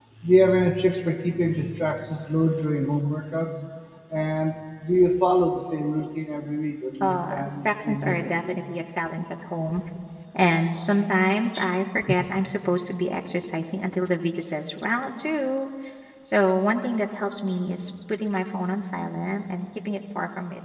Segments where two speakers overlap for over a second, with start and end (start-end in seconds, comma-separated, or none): 7.0-8.6